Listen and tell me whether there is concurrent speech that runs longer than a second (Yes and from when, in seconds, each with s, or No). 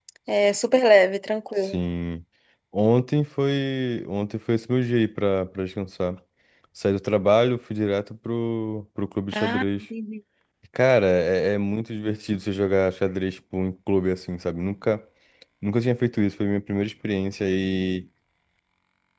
No